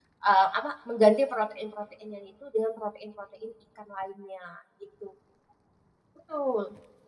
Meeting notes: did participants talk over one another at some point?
No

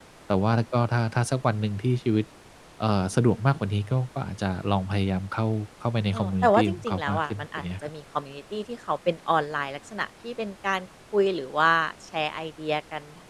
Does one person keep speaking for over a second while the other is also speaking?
Yes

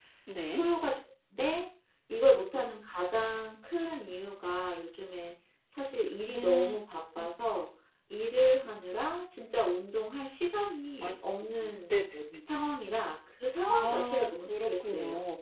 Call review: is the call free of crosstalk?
No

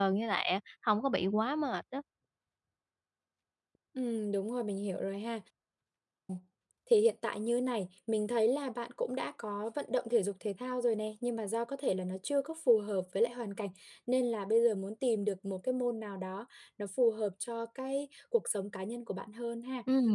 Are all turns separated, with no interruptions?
Yes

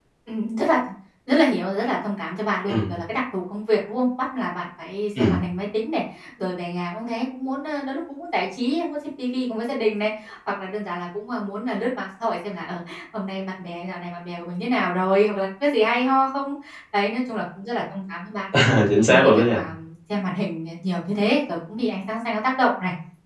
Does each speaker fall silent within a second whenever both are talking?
Yes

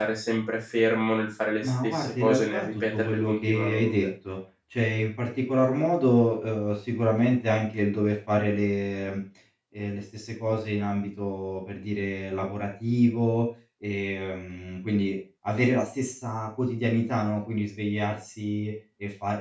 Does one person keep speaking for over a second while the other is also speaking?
Yes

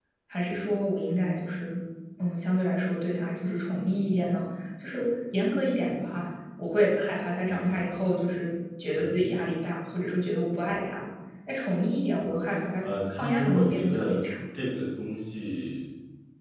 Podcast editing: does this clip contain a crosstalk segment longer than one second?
Yes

